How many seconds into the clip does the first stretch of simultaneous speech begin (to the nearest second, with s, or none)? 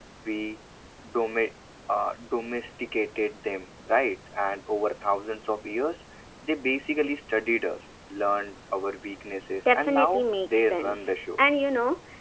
10 s